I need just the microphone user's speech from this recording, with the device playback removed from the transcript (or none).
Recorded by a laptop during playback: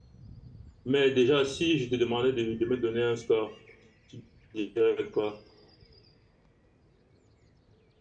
Mais déjà, si je te demandais de, de me donner un score, tu dirais quoi?